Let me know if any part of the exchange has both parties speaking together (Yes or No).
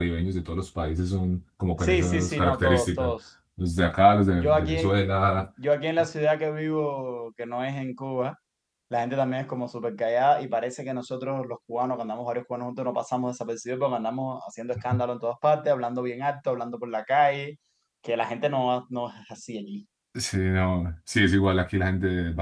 Yes